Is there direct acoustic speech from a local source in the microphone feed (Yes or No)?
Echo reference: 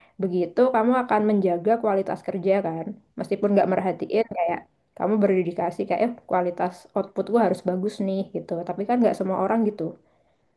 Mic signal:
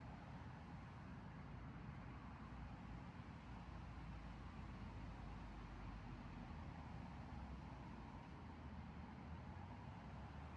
No